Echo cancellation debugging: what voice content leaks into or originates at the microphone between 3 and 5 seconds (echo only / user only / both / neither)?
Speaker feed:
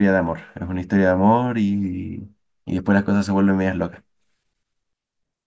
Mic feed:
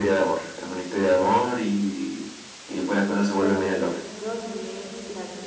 both